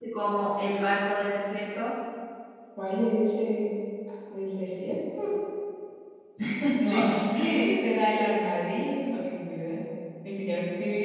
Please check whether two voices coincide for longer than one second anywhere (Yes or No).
No